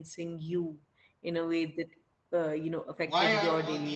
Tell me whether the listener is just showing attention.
No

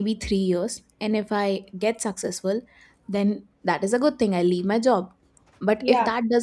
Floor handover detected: No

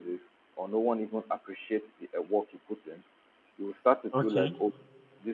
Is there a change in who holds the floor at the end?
No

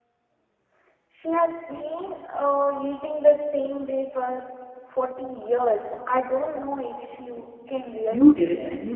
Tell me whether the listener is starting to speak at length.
Yes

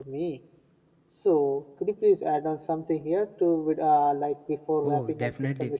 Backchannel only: No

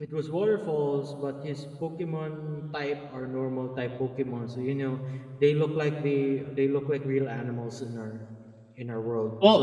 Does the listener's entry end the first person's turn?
Yes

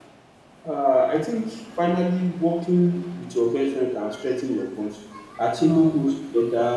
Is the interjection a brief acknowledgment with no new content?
Yes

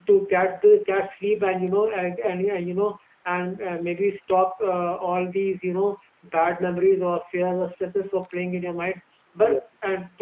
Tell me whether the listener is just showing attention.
Yes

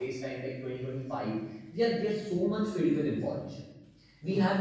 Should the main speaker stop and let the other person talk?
No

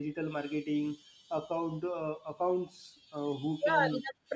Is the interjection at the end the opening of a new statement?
Yes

